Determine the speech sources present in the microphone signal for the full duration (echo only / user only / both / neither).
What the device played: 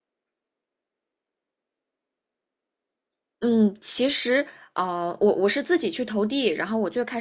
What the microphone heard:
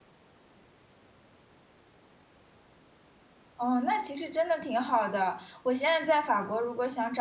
user only